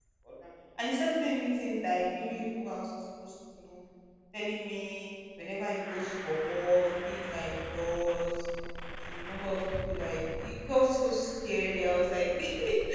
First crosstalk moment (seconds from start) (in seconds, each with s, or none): none